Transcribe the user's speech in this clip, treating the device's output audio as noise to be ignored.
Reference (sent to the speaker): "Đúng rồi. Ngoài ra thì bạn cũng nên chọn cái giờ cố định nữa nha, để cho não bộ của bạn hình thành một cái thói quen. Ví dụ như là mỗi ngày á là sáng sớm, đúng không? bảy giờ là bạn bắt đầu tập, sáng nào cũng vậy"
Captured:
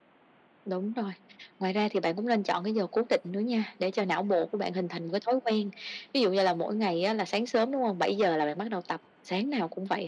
none

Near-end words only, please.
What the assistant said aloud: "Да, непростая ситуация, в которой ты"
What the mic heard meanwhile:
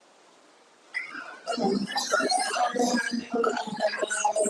none

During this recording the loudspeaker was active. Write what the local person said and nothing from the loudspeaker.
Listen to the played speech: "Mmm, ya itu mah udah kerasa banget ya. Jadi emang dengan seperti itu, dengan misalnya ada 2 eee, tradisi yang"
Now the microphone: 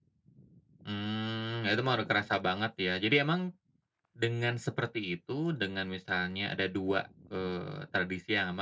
none

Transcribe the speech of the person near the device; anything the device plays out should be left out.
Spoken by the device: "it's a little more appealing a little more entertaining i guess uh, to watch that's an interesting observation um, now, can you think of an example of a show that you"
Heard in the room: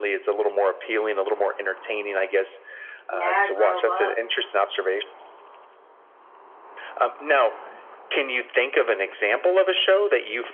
Yeah, grow up.

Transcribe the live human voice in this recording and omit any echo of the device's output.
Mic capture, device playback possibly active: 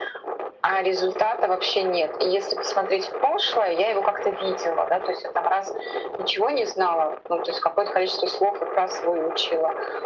none

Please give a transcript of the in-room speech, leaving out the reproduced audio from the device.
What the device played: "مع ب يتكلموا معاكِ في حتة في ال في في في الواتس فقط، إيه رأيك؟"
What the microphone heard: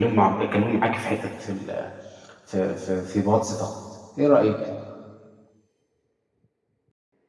none

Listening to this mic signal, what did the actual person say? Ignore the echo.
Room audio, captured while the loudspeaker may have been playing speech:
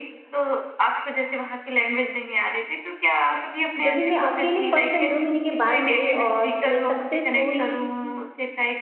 जब भी मैं अकेले फ़र्स्ट टाइम 2 महीने के बाद गई और मैं सक्सेस हुई

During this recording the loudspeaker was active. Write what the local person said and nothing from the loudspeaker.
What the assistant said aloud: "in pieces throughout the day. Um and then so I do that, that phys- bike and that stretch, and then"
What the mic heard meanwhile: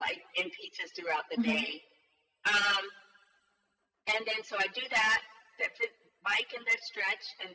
Mhm.

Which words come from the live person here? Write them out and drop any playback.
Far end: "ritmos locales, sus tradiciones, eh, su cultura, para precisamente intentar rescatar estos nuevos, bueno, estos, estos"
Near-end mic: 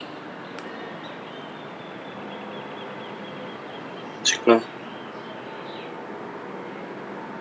Sí, claro.

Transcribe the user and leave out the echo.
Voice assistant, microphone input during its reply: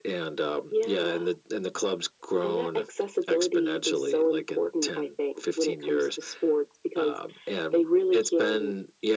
none

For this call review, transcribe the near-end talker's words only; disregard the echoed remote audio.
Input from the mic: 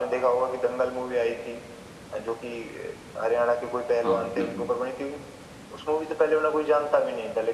हाँ, हाँ, बिल्कुल।

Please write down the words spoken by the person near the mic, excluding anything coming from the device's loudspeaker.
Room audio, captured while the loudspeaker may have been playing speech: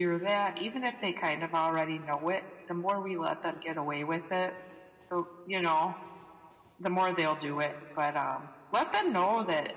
none

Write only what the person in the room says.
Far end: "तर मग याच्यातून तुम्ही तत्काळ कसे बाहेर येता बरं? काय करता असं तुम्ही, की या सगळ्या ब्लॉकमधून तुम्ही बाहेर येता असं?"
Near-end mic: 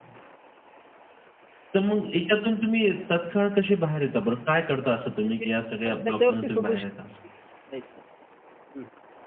म्हणजे आपण त्याच्यावरती सोल्युशन करायचं. हं,

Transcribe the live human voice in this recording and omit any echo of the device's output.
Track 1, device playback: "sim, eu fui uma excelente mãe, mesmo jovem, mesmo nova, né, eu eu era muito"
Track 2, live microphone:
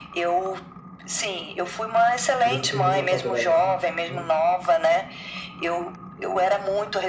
E você terminou a faculdade assim mesmo?

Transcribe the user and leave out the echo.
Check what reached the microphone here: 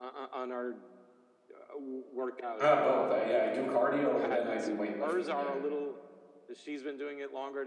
uh, both. I yeah, I do cardio and then I do weightlifting, yeah.

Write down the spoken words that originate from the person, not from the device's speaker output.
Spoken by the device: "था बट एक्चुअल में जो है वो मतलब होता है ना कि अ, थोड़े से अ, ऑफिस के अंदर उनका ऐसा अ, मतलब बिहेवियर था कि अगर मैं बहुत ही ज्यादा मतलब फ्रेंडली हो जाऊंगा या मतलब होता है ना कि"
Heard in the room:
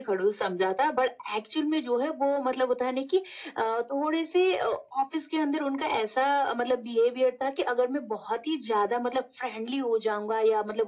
none

